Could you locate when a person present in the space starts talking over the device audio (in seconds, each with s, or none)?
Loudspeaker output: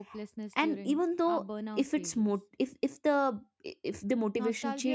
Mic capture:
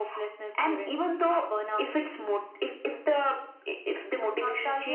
none